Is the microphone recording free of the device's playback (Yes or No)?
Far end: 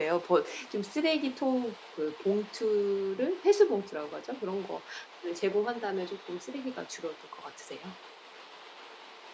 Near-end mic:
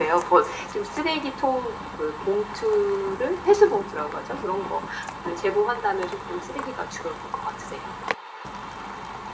No